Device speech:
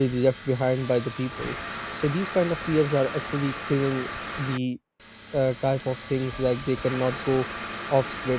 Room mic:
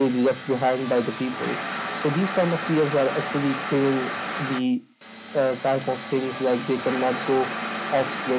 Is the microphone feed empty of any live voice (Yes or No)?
Yes